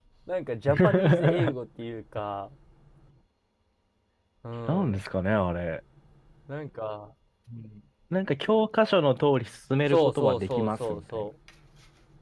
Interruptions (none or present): present